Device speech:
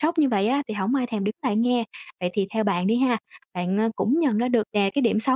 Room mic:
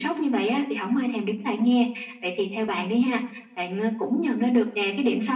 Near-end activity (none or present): none